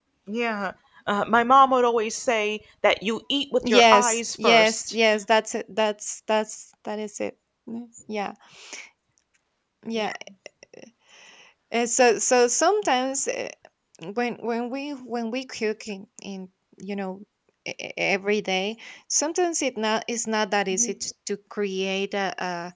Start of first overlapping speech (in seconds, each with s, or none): 3.6 s